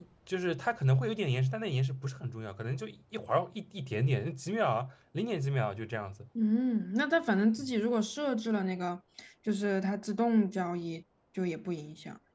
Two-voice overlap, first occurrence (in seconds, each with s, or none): none